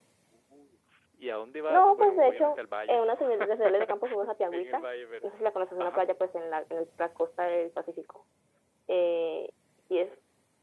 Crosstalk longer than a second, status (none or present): present